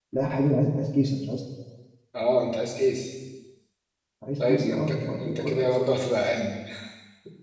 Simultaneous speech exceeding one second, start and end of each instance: 4.5-5.8

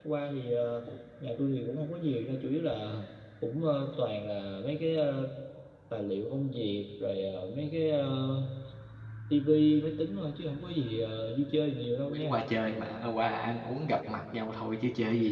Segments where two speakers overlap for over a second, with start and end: none

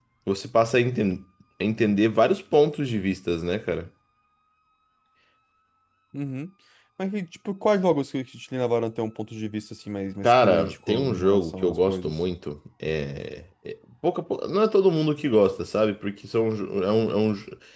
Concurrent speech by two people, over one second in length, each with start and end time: 10.2-12.1

